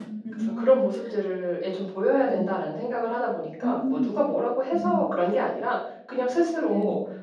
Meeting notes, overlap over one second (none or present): none